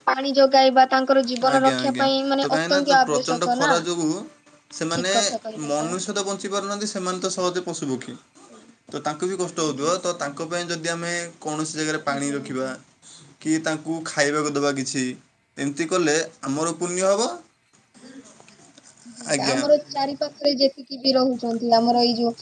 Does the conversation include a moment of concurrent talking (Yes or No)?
Yes